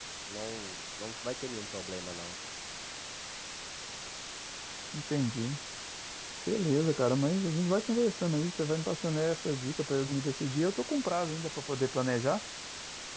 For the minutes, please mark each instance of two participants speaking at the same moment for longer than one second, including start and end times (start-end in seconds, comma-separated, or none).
none